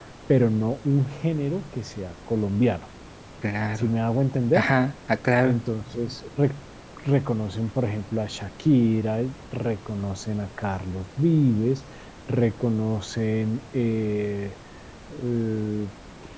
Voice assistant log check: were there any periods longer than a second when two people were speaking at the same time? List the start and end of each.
none

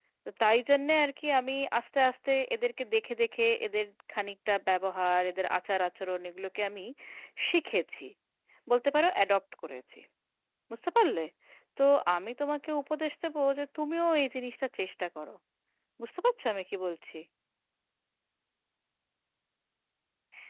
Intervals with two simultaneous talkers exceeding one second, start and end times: none

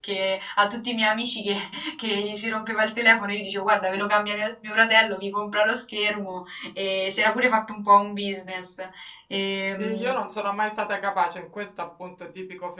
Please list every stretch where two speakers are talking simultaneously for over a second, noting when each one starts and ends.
none

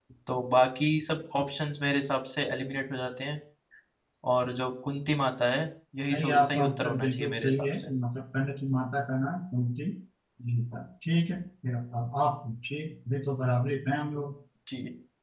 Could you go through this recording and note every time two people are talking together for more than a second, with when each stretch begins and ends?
6.1-7.9

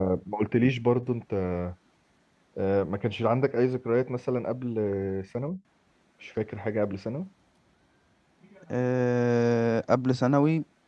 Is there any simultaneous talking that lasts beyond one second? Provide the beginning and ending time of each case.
none

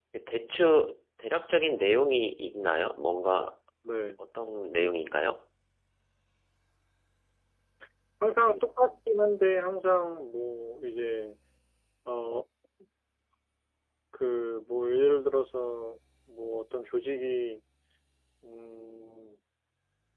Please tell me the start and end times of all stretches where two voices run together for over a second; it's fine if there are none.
none

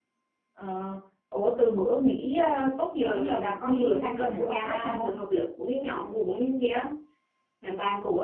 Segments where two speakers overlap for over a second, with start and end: 3.0-5.2

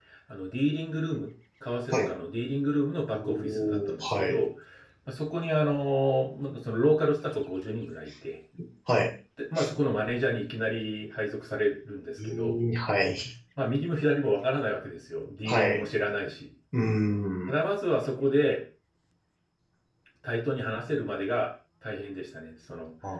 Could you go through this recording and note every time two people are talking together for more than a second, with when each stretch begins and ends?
3.1-4.4

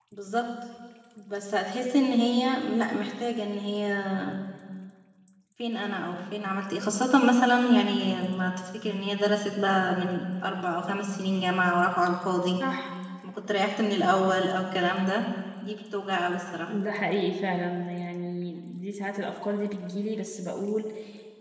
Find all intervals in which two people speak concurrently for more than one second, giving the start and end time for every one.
none

